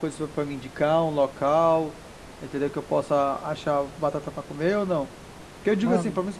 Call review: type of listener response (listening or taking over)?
listening